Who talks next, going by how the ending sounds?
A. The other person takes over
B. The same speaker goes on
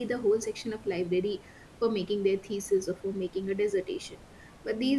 B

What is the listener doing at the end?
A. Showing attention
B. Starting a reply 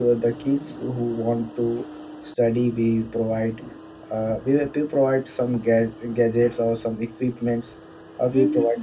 A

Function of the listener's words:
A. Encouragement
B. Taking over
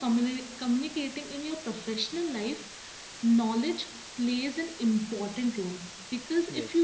A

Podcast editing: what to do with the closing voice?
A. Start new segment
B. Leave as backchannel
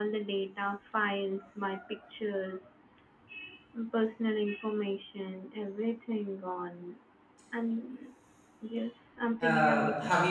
A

